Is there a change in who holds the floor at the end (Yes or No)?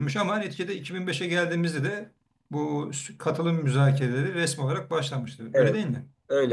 Yes